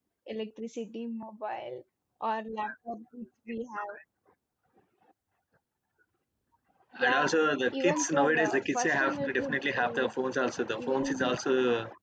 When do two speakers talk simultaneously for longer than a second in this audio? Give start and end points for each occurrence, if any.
7.7-10.1

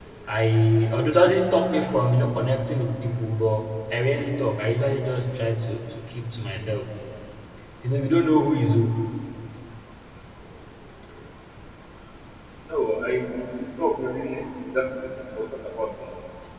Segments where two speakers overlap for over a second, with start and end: none

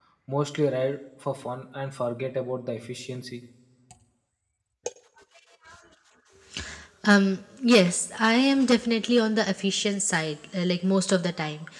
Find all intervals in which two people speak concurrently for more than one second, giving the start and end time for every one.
none

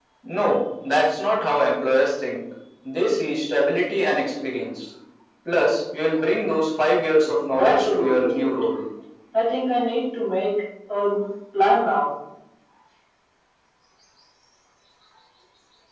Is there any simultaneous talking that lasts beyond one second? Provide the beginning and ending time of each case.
7.5-8.7

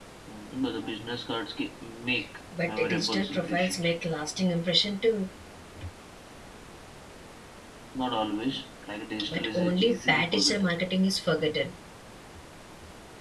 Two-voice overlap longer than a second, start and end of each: 2.6-4.0, 9.3-10.7

